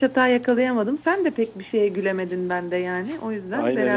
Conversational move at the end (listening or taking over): taking over